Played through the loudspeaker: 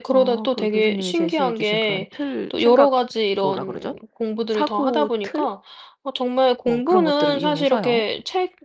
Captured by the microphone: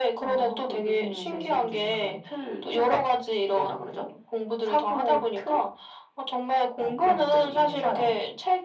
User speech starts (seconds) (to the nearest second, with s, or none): none